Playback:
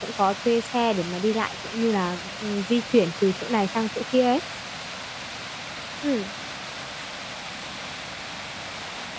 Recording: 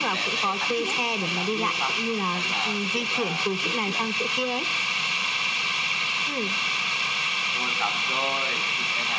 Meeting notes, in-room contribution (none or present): present